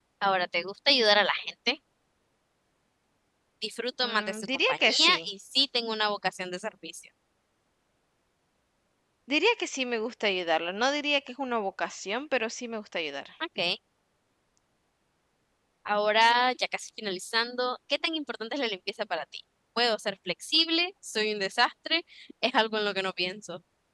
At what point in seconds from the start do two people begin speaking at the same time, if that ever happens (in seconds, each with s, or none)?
4.0 s